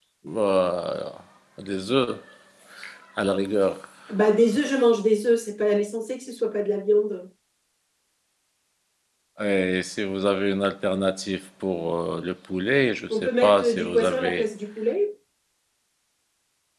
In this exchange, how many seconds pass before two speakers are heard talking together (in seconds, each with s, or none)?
13.1 s